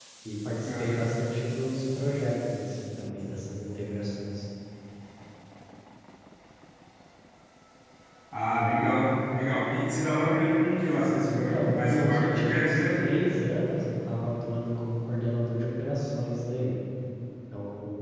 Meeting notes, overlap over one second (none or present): present